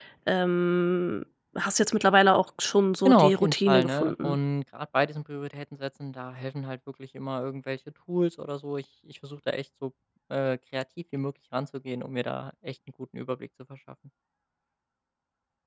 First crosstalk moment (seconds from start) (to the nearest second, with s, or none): 3 s